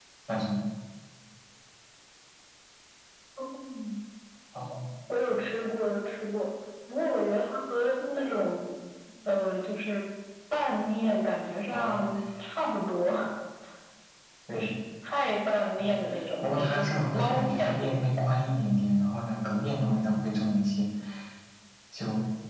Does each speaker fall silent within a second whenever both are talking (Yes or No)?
No